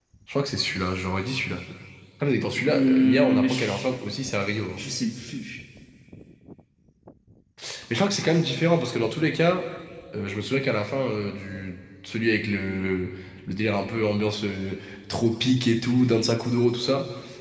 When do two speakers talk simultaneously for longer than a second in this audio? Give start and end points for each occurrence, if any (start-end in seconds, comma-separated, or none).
2.7-3.9